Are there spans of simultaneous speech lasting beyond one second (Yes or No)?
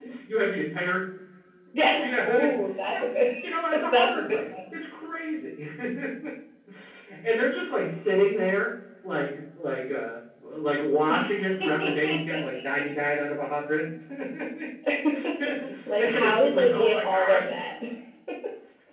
Yes